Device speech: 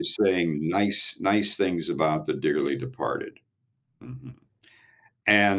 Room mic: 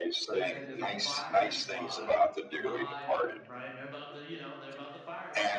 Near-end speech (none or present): present